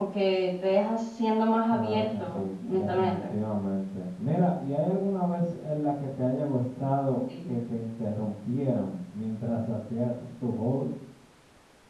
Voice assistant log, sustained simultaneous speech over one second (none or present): present